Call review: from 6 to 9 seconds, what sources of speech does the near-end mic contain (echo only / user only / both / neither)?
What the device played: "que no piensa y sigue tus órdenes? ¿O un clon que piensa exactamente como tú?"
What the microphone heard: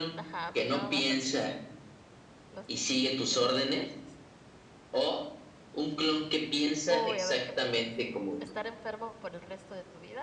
both